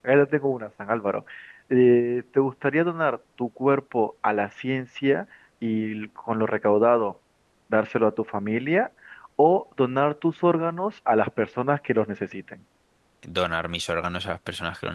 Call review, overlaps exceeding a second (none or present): none